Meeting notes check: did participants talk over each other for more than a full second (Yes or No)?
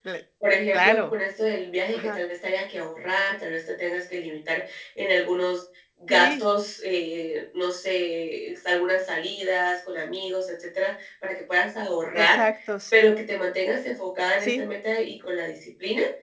No